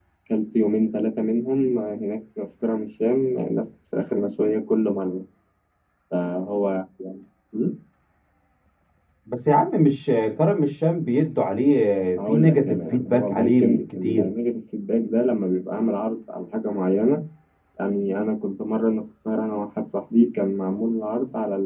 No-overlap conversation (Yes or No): No